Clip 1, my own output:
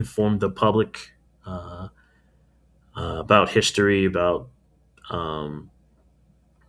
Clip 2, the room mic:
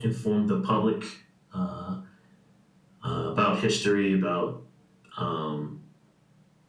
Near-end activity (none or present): none